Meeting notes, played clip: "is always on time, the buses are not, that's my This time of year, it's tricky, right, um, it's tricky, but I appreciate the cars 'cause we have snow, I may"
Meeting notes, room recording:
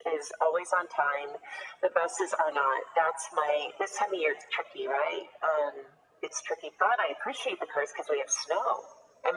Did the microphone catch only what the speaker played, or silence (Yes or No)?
Yes